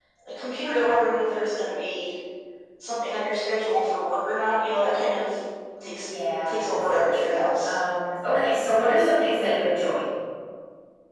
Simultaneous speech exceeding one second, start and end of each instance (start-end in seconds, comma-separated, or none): 6.5-7.7